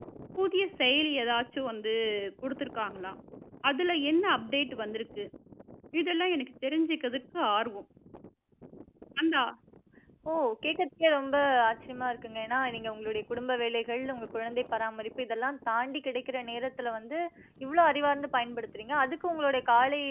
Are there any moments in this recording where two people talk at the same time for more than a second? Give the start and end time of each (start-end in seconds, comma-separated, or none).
none